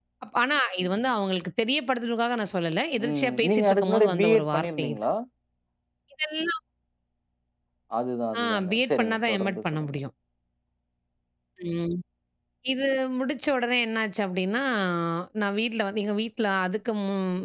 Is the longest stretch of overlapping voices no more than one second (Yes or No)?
No